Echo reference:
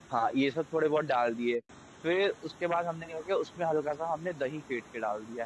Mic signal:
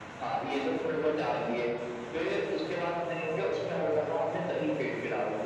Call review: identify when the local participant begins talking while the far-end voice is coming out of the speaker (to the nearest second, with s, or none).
none